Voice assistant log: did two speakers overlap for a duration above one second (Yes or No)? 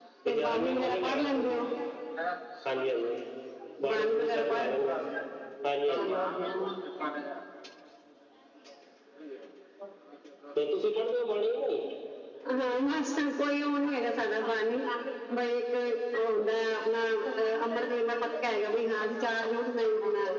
Yes